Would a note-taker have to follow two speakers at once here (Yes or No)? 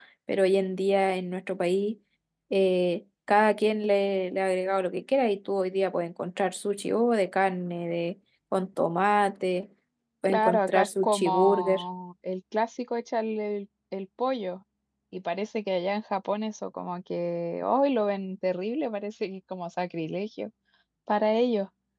Yes